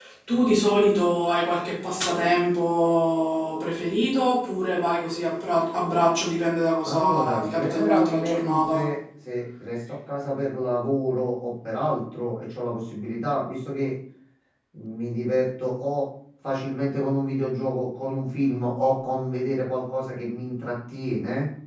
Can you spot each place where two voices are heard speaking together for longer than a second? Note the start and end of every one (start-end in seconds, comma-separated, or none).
6.8-8.9